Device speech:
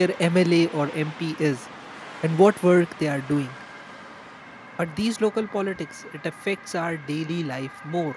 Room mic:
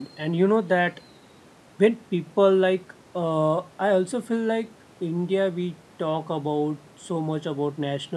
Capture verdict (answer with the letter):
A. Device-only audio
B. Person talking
B